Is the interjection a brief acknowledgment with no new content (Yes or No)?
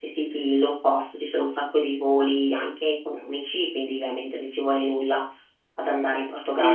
No